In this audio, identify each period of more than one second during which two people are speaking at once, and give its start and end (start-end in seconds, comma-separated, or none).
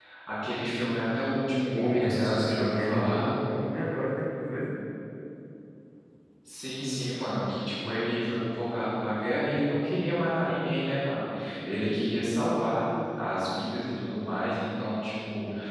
1.7-3.3